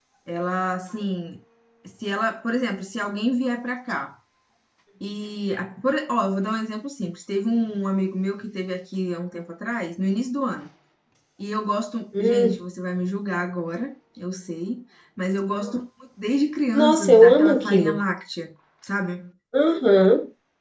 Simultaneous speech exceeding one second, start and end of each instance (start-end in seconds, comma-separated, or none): 16.7-18.0